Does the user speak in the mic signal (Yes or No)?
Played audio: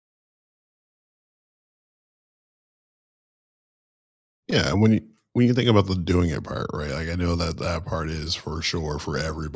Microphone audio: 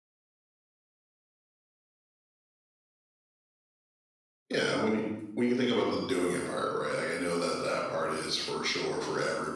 No